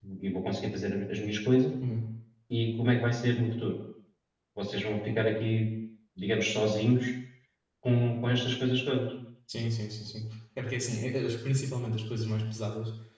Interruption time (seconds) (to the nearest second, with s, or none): none